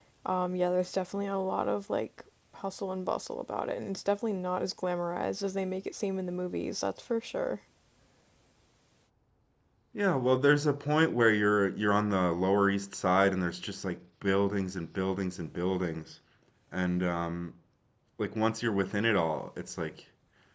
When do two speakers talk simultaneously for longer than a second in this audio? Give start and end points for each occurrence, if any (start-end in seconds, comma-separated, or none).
none